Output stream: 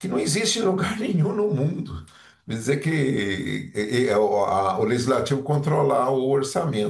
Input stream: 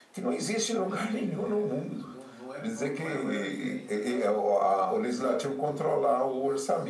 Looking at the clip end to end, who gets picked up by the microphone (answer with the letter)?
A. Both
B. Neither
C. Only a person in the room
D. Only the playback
A